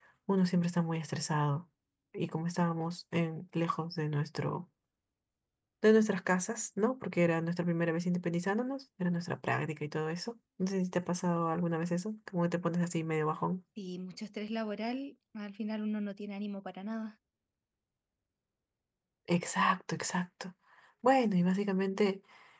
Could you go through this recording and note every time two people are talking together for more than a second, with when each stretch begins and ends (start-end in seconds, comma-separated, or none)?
none